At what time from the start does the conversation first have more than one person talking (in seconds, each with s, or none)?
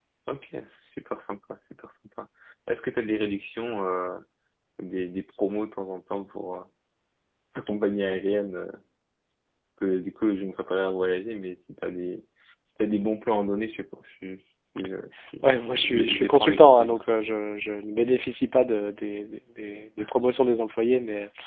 15.4 s